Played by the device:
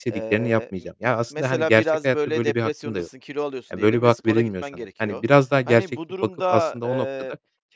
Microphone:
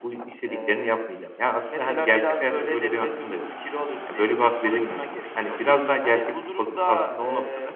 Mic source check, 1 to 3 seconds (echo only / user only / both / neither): echo only